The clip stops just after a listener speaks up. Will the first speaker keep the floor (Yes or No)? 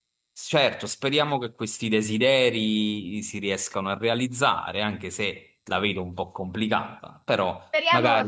No